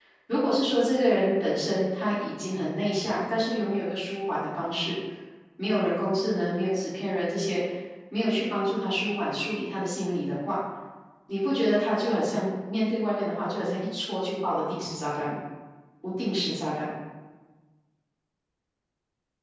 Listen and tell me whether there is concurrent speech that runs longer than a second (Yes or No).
No